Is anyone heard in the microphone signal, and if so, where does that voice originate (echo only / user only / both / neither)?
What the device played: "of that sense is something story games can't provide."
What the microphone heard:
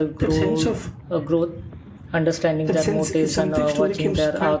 both